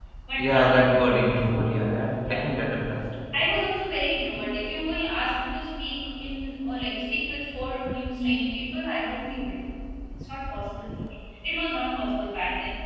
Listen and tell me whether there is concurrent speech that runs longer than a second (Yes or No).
No